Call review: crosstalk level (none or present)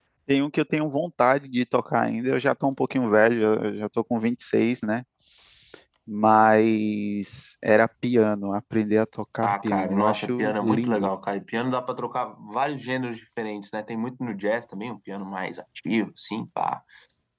present